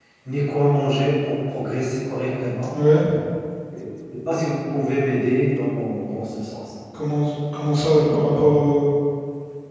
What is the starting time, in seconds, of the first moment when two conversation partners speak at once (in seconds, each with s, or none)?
none